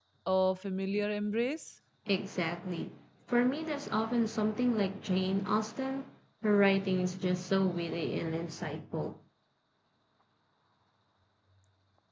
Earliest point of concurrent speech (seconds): none

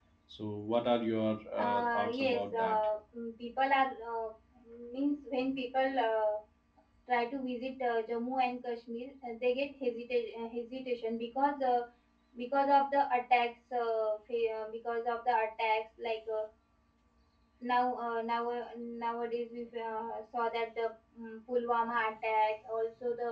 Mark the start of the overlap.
2 s

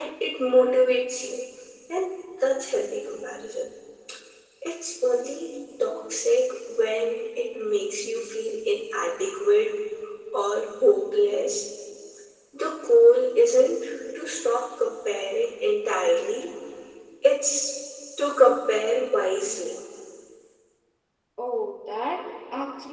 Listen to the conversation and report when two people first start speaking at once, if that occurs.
none

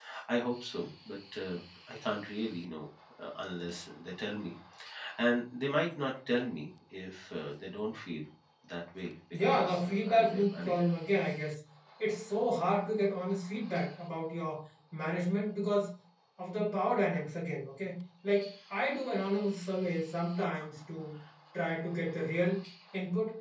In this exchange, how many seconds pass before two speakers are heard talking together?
9 s

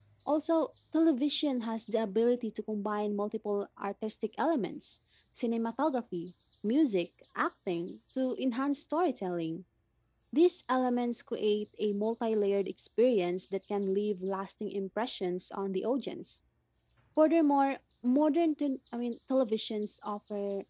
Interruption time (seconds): none

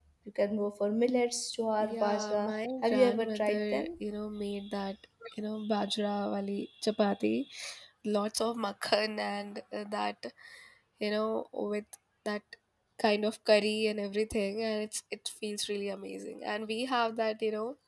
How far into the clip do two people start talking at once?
2 s

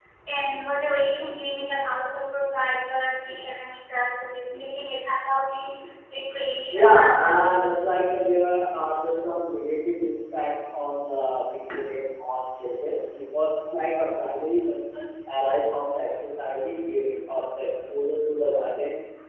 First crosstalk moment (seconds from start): 7 s

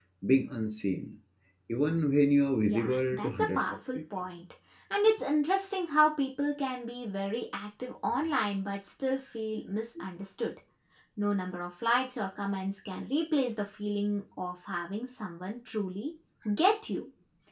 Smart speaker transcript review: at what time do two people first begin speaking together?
3 s

